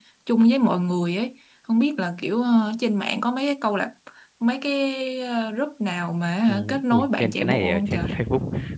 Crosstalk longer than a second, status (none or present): present